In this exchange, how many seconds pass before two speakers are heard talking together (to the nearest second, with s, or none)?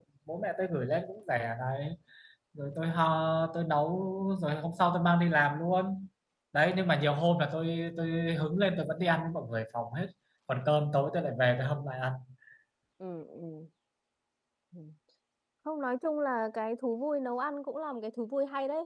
none